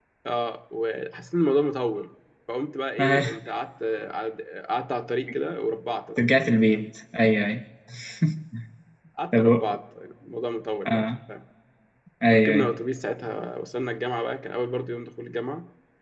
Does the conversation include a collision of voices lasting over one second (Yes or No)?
No